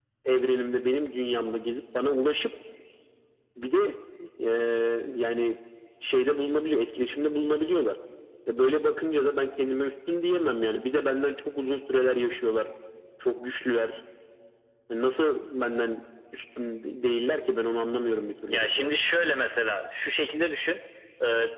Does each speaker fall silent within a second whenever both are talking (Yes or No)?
Yes